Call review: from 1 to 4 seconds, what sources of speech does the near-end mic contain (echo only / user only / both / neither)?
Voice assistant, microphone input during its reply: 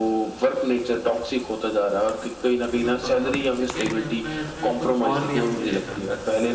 both